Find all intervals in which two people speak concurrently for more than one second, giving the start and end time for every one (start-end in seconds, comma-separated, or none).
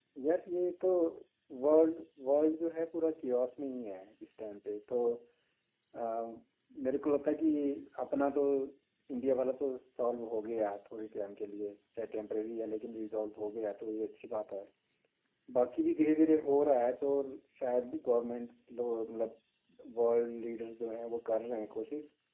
none